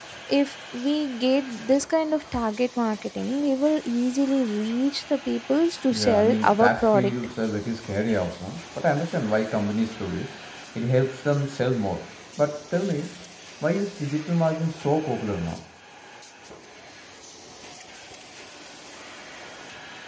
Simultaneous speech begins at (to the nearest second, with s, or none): 6 s